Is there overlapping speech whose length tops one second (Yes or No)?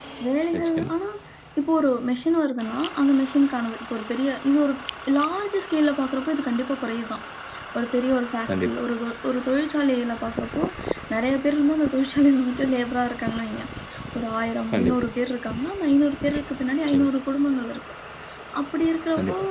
No